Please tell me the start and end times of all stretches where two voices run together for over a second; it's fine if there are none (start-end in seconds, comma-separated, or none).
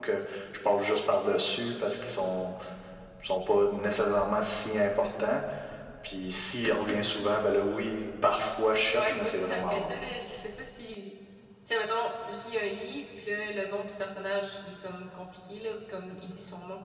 8.7-10.1